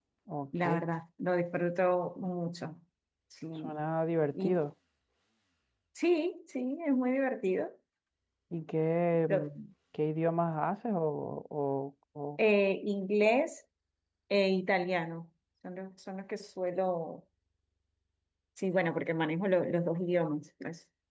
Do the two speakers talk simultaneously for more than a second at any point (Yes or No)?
No